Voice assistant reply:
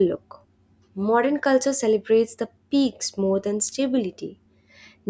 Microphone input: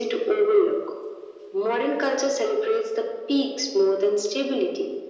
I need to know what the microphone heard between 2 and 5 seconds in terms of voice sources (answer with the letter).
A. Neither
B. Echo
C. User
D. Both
B